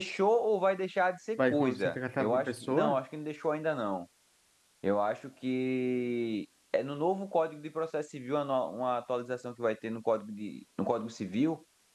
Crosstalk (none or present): present